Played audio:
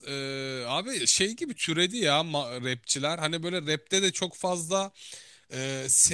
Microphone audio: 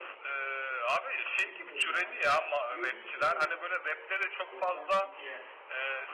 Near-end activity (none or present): present